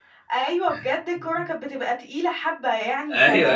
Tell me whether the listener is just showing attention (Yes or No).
Yes